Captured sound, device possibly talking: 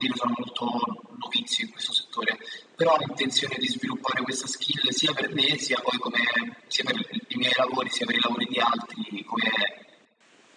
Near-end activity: none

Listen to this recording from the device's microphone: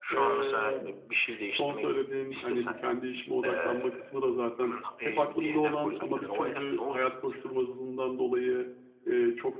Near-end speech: present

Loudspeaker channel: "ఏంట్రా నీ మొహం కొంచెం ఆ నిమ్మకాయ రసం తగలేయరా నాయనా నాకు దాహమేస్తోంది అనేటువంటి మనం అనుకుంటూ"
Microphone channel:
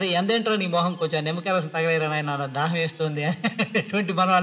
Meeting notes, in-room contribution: none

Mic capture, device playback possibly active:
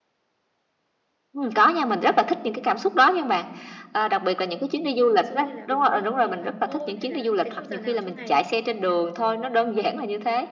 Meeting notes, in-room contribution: present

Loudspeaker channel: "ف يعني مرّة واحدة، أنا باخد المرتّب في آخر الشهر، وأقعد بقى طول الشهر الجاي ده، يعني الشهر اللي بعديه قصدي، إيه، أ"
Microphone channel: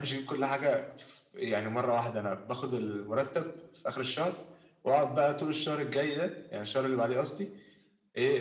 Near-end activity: none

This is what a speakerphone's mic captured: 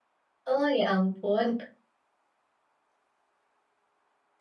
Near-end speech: present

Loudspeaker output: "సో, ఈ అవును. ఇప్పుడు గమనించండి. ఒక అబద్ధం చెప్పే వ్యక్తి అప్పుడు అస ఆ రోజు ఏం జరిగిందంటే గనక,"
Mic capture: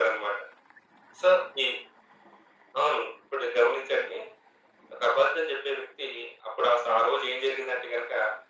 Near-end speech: none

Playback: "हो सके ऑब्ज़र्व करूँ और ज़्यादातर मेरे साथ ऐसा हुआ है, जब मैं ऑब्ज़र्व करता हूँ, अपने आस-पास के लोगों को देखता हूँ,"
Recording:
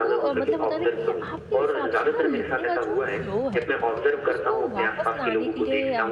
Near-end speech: present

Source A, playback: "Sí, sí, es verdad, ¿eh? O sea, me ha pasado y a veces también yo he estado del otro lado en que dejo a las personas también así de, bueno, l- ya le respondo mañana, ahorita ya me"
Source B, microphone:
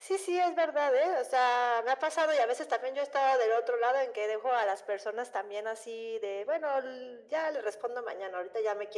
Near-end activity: none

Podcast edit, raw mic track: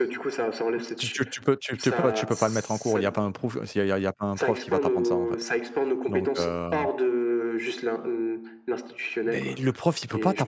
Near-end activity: present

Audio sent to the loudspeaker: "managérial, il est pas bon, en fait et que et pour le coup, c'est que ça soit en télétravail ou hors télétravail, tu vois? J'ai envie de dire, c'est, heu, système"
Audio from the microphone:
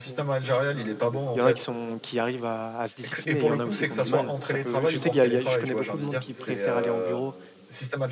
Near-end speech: present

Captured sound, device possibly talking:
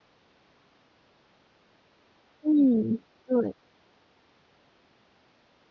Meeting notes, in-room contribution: present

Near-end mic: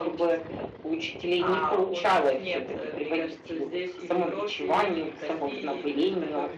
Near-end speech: none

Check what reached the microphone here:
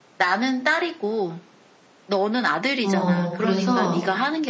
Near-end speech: present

